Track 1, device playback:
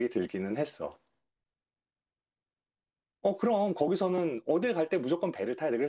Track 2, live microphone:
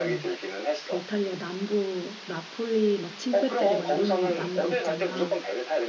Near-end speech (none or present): present